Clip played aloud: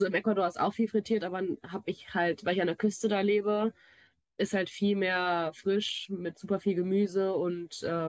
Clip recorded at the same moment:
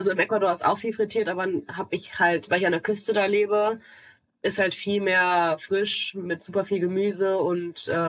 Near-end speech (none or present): none